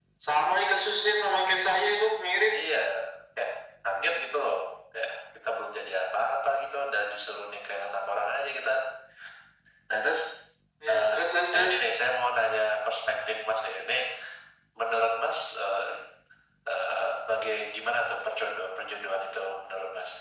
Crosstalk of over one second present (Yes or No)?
No